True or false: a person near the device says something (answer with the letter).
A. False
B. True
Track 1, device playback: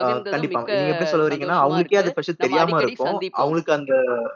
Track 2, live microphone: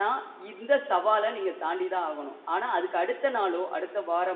B